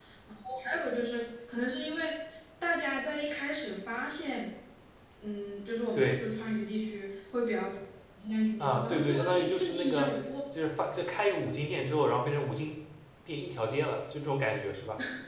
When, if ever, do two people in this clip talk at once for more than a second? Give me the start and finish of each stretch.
8.6-10.1

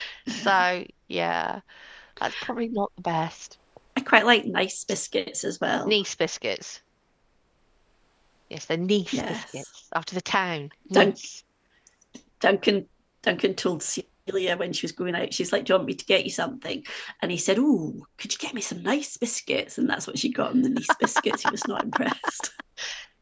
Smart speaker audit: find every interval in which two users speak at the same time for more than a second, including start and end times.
none

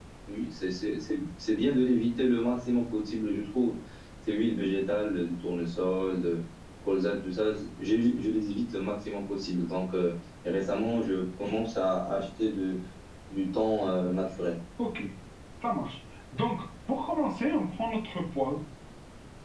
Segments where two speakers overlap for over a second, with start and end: none

